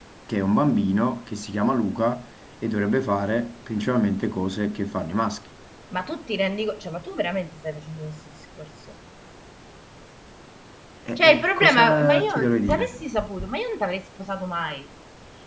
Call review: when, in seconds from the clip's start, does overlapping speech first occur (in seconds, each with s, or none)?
11.2 s